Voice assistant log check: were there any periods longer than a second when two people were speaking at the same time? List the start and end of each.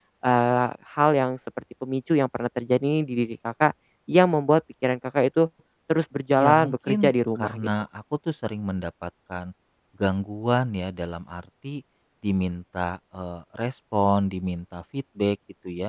6.4-7.7

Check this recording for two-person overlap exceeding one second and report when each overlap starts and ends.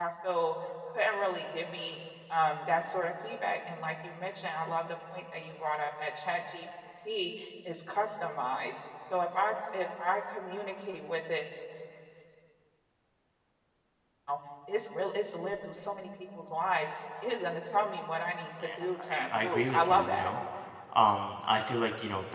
18.6-20.3

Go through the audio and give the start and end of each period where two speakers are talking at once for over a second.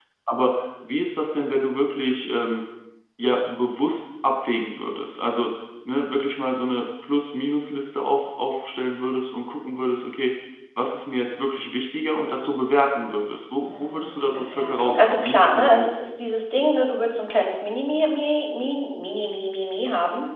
13.7-15.9

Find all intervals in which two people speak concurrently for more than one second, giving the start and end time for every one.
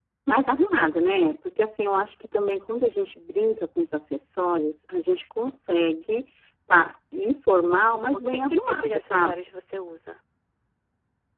8.0-9.3

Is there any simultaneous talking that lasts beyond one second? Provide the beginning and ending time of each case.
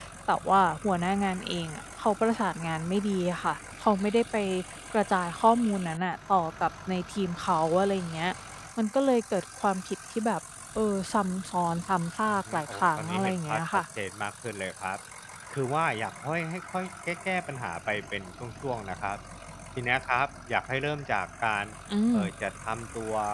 12.3-13.8

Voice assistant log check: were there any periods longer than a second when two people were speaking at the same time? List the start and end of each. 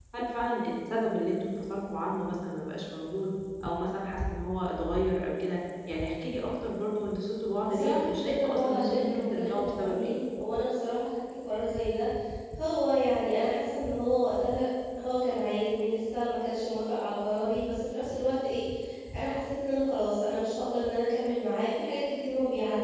7.7-10.2

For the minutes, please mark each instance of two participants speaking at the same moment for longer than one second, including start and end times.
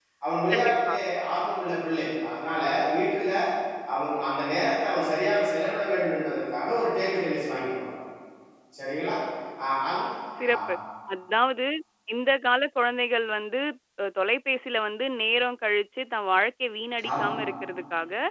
none

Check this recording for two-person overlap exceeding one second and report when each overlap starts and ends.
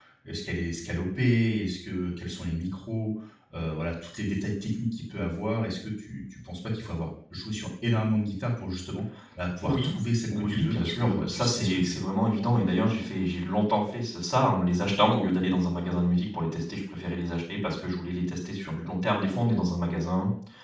10.3-12.0

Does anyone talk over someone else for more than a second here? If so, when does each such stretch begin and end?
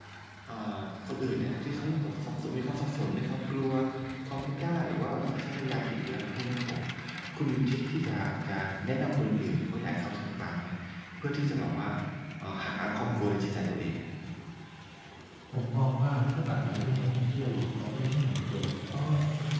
none

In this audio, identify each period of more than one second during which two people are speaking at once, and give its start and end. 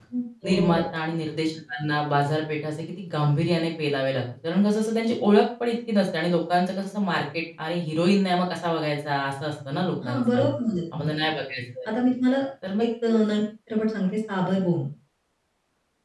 none

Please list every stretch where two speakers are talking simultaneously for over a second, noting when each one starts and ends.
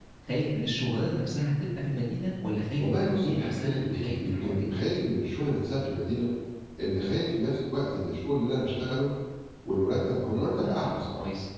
2.8-5.1

